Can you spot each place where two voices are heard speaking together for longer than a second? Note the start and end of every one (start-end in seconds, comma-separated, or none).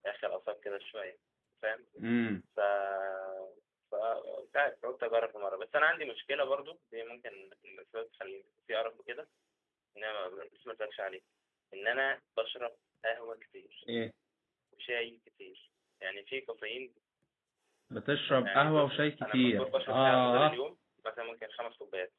18.4-20.6